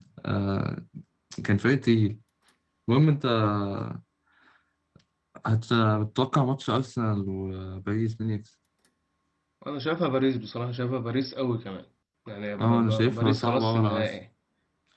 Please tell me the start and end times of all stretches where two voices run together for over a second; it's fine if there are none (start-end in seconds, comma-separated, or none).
12.6-14.1